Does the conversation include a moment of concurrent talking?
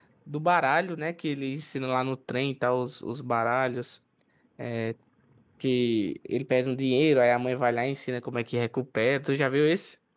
No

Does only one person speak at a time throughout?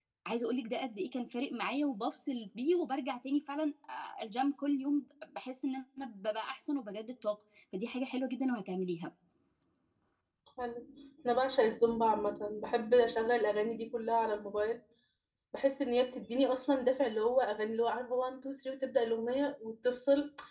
Yes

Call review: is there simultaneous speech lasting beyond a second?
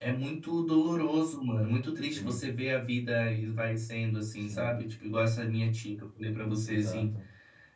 No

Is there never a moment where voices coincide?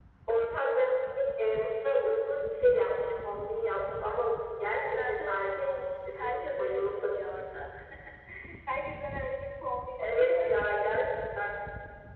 No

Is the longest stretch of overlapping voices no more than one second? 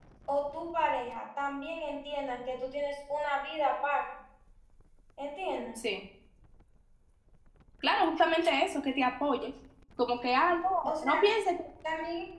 Yes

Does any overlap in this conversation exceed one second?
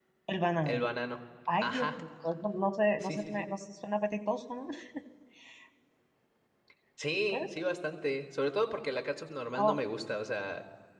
No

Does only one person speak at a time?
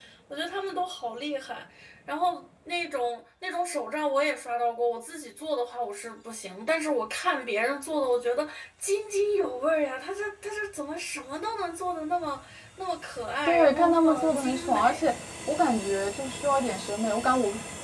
No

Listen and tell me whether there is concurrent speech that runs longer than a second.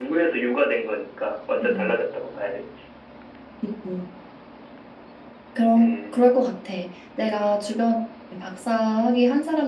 No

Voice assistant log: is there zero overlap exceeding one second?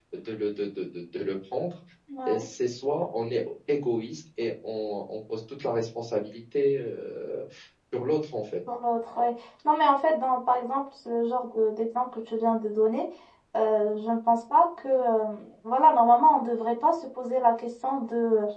Yes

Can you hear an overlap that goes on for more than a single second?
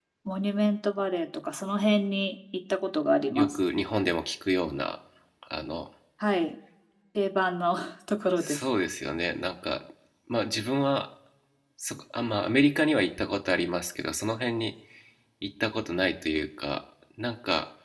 No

